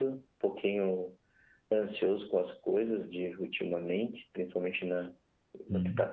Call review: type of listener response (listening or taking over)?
listening